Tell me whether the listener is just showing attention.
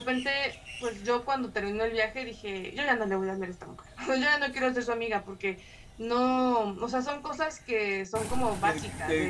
No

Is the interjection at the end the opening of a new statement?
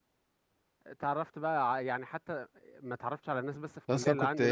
Yes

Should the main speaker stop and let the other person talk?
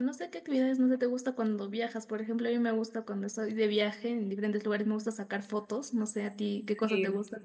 Yes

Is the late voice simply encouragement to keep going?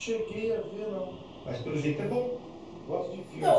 No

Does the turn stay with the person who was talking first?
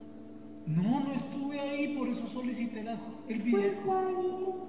No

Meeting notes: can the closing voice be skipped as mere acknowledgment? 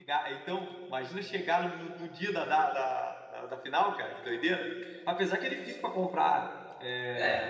Yes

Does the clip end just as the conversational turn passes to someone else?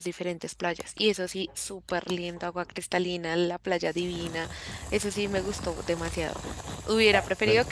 No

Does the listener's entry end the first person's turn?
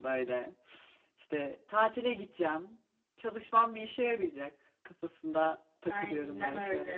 Yes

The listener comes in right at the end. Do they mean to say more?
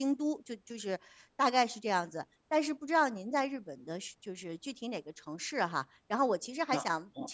No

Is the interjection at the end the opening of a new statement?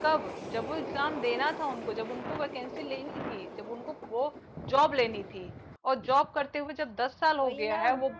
No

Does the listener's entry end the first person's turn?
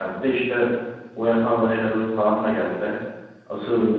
No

